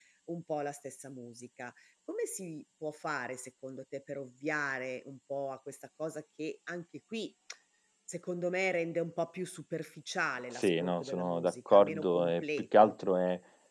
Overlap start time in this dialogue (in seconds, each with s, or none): 10.5 s